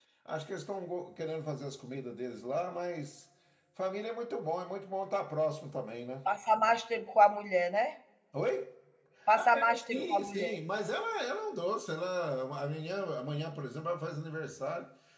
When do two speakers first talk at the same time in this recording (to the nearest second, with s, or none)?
9 s